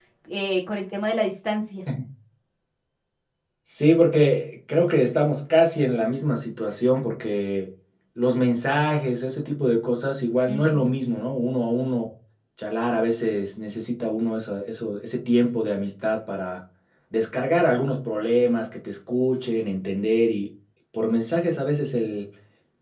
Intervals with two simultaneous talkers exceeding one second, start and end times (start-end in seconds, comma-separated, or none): none